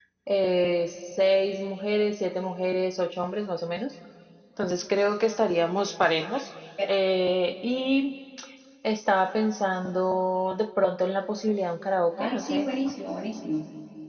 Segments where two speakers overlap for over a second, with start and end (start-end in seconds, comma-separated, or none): none